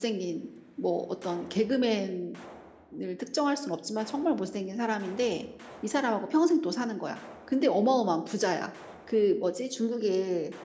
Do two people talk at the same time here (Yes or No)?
No